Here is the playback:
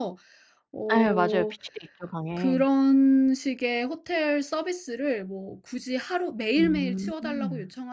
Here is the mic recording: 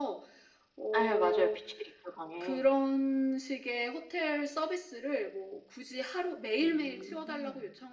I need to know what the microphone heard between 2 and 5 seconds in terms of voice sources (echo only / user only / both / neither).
echo only